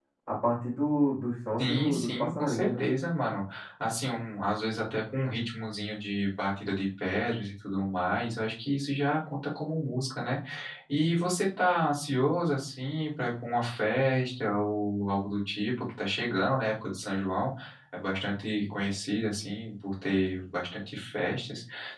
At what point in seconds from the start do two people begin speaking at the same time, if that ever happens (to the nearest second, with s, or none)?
2 s